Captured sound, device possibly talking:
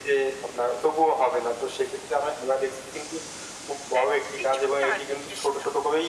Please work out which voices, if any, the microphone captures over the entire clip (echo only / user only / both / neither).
both